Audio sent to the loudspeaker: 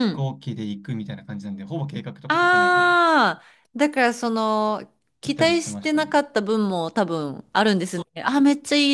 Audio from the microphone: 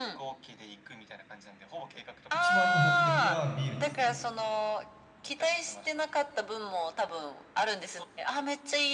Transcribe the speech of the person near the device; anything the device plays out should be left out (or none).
一番の目的はビールですね。